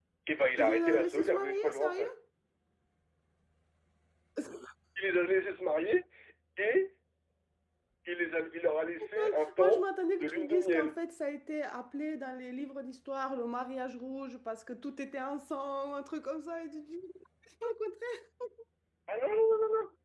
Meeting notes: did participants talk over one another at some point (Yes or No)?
Yes